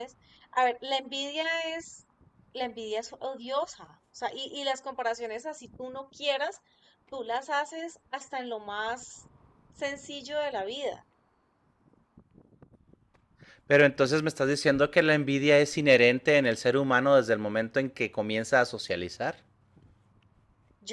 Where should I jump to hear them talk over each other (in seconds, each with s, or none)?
none